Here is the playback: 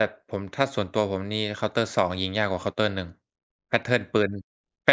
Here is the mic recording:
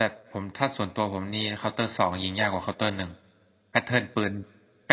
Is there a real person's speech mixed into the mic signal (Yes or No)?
No